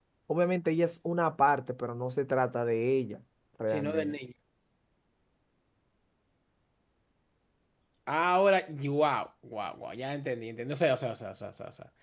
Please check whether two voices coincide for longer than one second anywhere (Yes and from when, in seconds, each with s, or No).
No